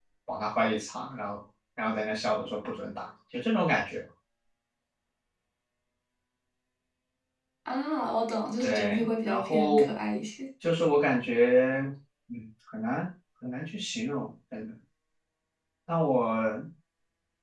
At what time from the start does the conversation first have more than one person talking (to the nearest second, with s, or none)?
9 s